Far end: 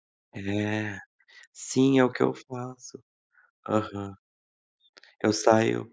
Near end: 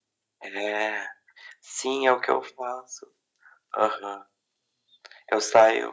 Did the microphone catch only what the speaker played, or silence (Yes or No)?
Yes